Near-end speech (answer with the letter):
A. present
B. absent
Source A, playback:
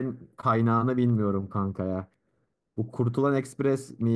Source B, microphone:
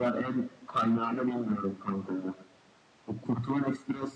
B